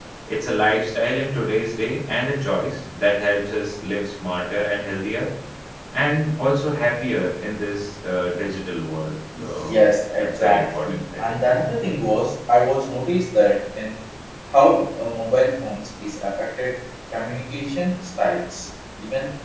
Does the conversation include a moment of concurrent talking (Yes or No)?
Yes